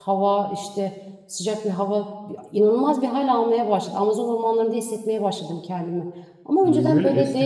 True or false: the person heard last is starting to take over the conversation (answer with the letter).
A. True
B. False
A